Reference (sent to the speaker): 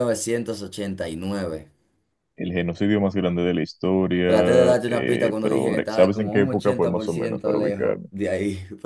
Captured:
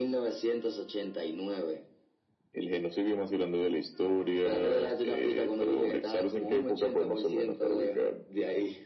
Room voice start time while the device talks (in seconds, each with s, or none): none